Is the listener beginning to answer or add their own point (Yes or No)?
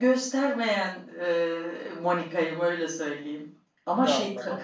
No